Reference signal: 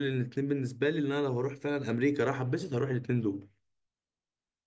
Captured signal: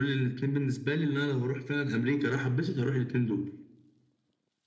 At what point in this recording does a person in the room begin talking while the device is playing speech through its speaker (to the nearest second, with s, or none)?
none